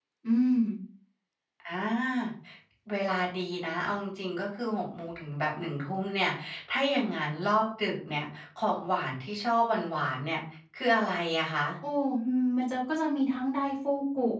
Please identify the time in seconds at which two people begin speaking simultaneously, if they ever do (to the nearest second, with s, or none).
none